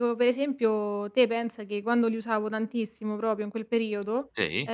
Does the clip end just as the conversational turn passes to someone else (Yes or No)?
No